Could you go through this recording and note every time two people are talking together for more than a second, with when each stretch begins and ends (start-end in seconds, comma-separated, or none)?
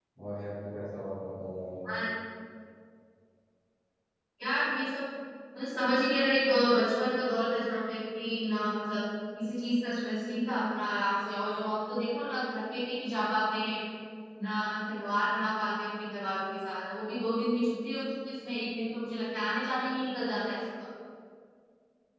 none